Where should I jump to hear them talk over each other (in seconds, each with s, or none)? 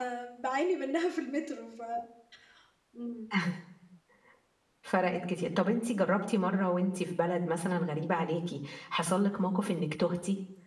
none